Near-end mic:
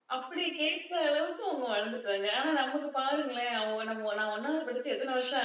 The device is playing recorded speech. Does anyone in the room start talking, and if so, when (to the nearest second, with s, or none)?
none